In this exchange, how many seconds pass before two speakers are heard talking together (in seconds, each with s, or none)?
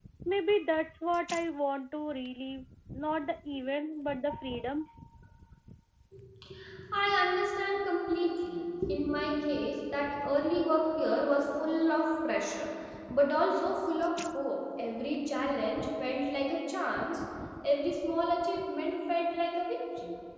none